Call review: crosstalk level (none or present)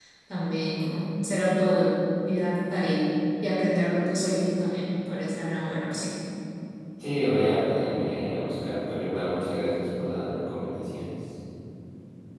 none